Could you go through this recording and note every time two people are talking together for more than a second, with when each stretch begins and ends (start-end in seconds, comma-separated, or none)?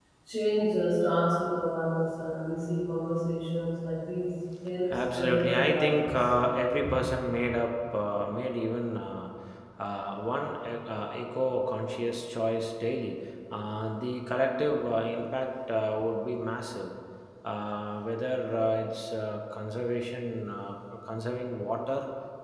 4.9-6.2